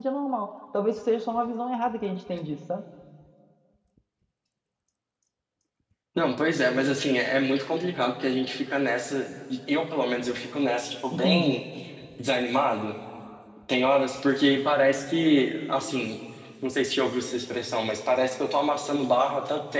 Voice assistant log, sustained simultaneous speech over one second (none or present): none